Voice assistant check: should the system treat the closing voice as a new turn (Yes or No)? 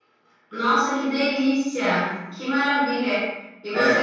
No